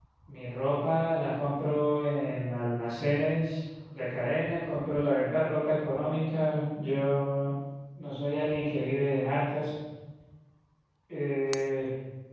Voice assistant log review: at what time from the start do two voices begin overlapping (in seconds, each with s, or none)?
none